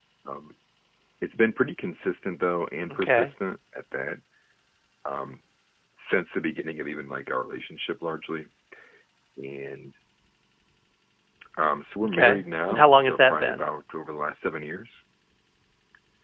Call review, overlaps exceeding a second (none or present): present